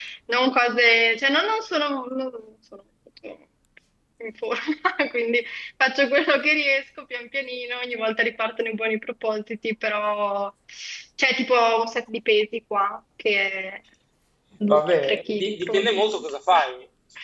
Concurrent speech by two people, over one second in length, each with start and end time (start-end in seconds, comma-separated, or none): 14.7-16.3